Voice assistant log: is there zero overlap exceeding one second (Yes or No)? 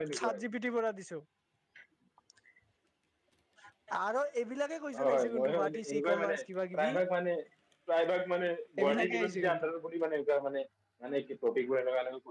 No